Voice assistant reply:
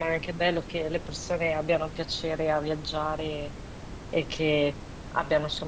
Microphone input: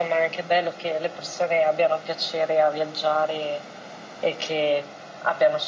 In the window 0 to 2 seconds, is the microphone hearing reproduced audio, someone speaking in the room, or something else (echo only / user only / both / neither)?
echo only